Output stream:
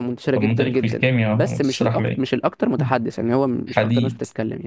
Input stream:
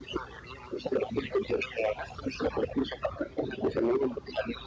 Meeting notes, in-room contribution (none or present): none